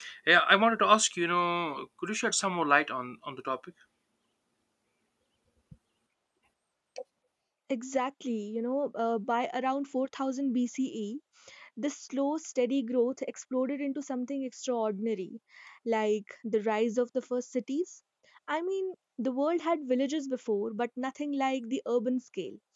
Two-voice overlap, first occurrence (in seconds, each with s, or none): none